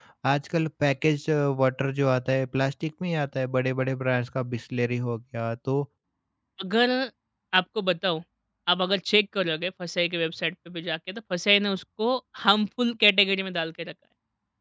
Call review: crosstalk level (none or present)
none